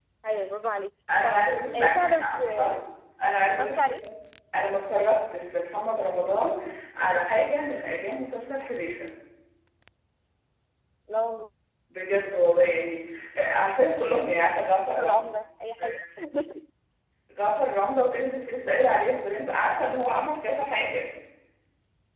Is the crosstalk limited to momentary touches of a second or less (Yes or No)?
No